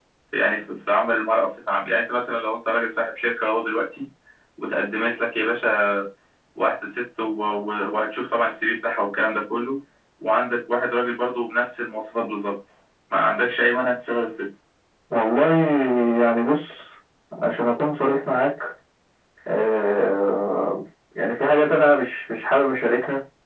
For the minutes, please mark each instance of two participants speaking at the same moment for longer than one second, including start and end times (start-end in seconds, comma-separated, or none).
none